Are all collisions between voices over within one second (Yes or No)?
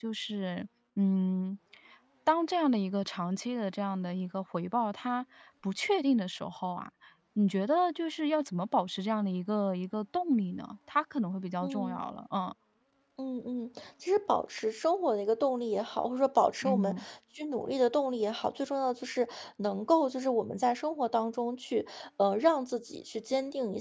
Yes